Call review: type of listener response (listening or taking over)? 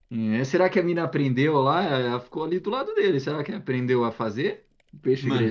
taking over